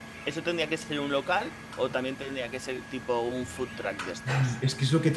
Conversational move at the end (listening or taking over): taking over